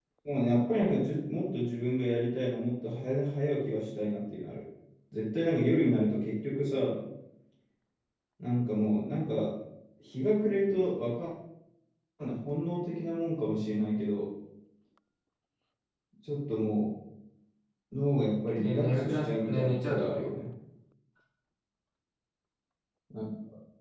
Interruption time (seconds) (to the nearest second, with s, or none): 19 s